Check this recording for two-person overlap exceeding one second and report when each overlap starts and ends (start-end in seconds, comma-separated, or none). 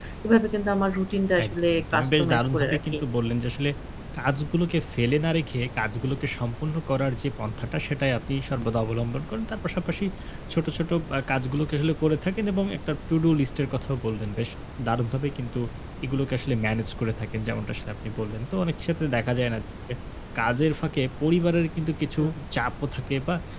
1.4-3.0